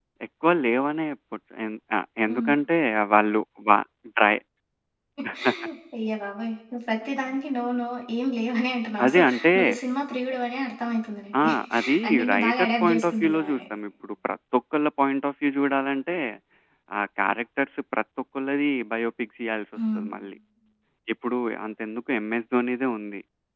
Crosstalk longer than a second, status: present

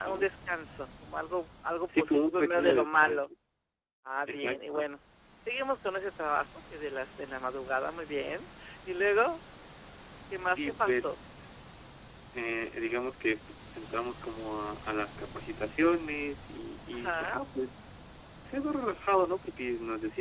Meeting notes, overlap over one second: present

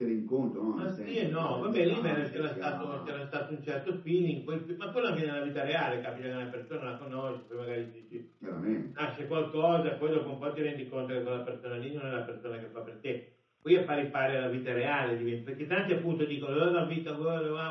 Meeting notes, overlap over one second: present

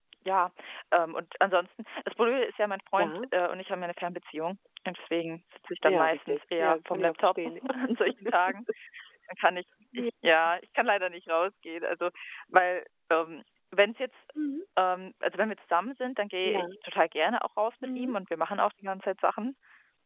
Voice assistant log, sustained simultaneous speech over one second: present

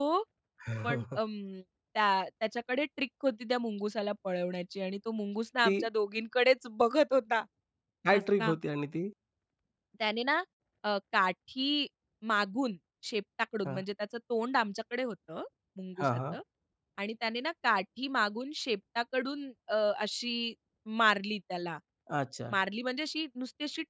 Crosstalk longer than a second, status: none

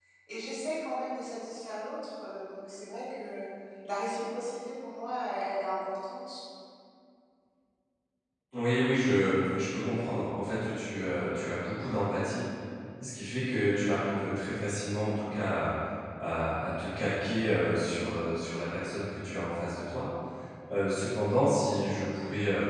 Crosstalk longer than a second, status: none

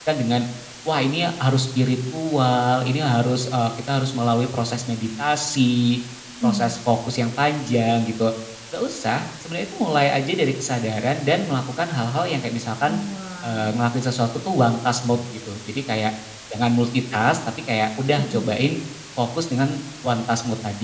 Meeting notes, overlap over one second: none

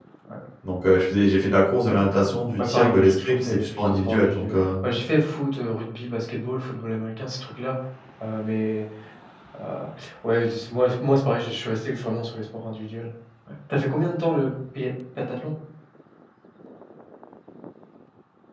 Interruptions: present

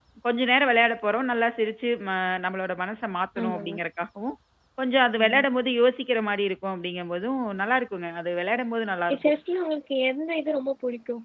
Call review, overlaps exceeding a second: none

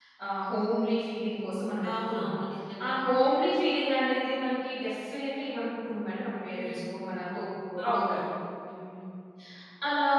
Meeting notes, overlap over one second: none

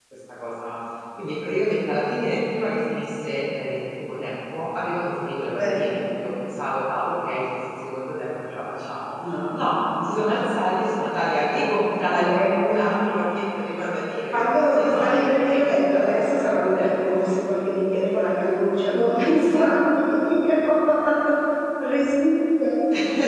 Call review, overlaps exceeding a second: present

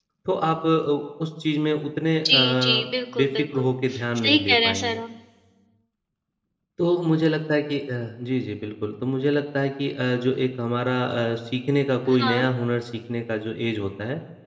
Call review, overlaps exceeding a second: present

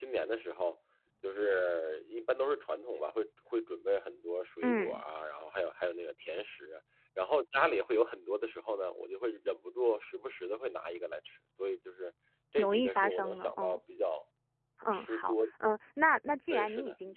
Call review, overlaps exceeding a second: present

